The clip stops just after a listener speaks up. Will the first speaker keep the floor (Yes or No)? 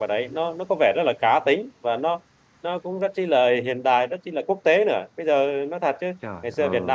Yes